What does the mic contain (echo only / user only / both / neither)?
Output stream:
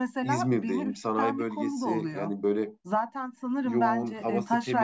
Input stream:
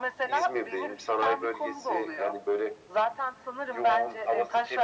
echo only